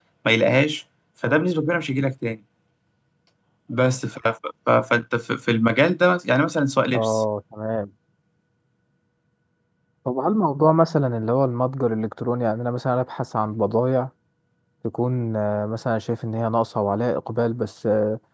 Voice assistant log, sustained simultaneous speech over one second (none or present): none